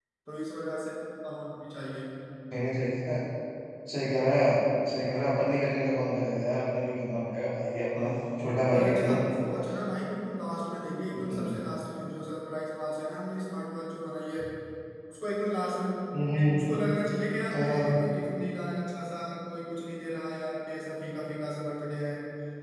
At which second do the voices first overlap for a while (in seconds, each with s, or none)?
8.0 s